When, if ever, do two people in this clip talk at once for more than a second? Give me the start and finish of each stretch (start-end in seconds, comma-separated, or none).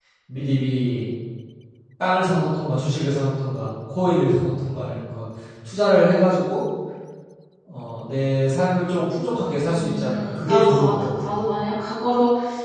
9.7-11.1